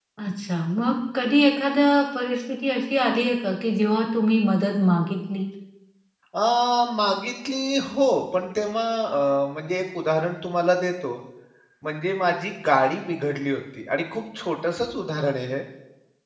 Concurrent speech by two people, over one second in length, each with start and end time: none

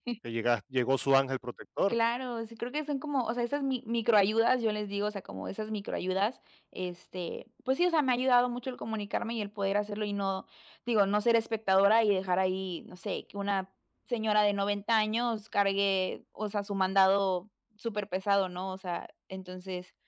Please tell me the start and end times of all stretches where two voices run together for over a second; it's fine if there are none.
none

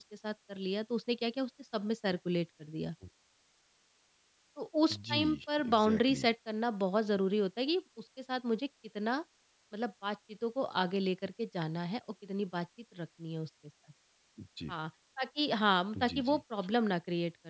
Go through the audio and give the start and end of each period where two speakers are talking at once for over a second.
4.9-6.3

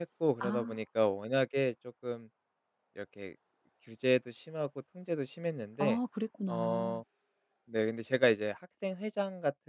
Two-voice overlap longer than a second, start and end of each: none

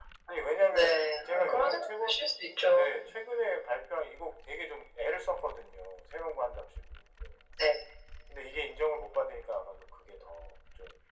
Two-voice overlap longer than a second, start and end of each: 0.7-2.1

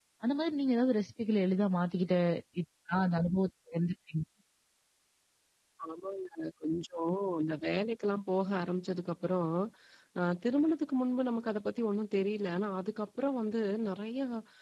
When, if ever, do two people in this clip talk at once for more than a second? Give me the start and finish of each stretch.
none

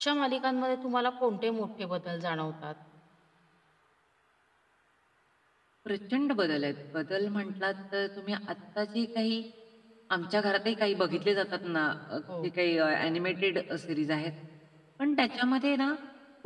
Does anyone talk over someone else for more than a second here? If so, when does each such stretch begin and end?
none

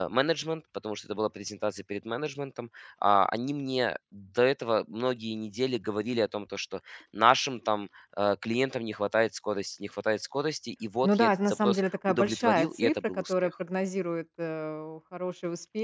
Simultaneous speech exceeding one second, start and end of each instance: 11.0-13.5

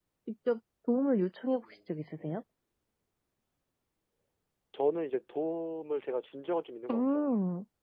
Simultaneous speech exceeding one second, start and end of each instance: none

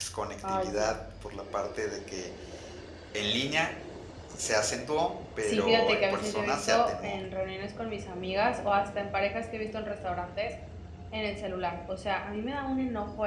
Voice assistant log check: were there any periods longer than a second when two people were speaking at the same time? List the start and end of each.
5.4-7.2

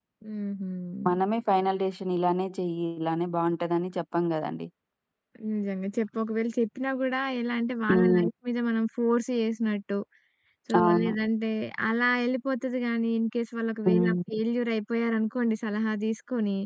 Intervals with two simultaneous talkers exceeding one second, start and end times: none

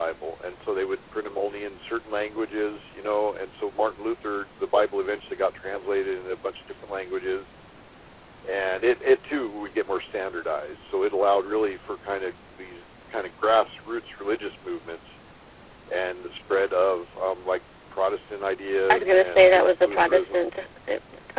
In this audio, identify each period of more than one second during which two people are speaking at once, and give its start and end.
18.9-20.5

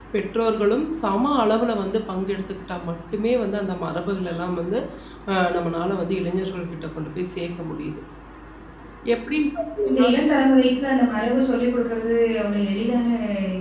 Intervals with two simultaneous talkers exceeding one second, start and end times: none

